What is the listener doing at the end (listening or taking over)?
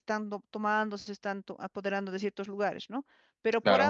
listening